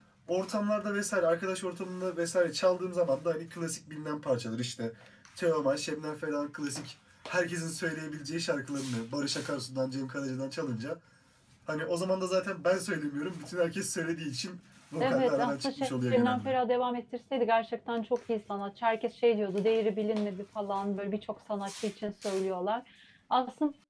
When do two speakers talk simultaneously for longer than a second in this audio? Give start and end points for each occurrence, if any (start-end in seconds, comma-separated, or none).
15.0-16.6